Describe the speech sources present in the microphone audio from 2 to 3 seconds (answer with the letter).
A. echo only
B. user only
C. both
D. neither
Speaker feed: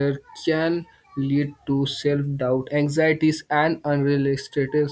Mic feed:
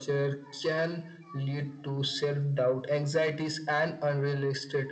A